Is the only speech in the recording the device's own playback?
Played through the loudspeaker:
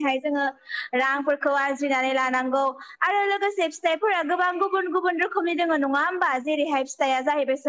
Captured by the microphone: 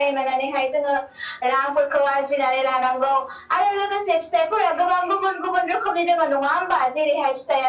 Yes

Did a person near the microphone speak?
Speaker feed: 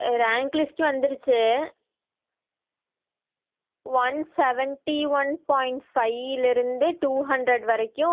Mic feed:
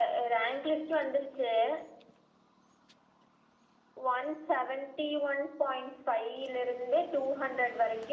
No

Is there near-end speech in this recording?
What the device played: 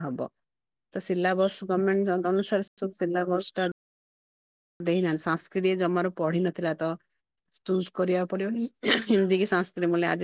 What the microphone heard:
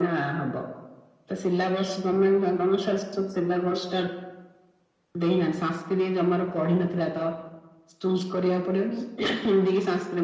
No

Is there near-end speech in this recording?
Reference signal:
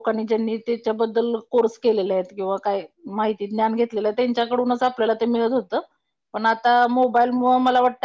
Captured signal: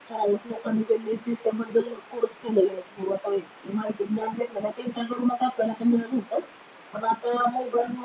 No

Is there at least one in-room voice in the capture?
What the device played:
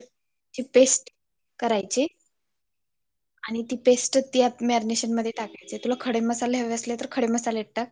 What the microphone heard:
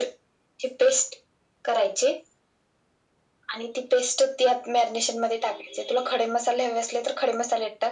No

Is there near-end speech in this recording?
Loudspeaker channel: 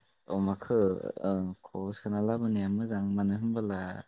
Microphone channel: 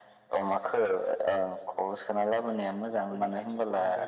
Yes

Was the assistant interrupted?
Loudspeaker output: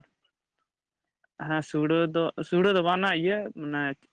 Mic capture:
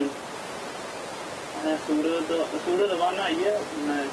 No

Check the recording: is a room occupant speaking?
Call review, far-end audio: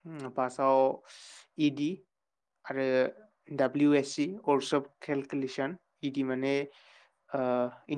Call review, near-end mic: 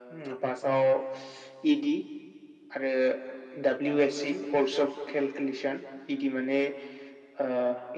No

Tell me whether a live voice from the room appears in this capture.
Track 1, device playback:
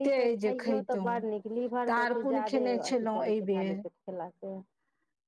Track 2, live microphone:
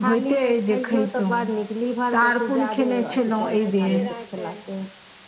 Yes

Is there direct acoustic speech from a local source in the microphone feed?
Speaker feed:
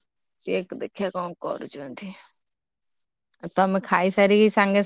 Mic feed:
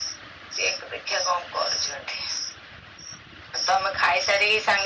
No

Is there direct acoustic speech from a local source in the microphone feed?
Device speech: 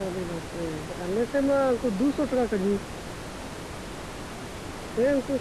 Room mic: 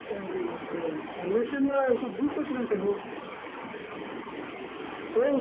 No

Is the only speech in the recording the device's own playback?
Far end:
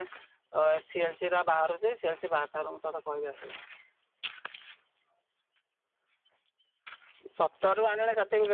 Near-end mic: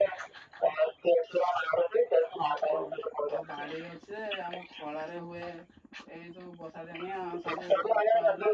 No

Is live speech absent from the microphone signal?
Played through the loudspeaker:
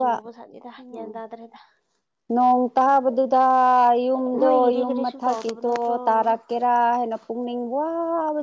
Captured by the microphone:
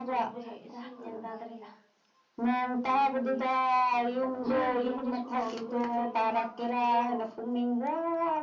No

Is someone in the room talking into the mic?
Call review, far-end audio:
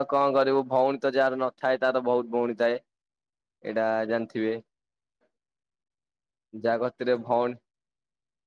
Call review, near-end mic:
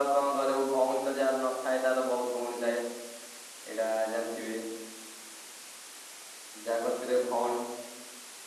No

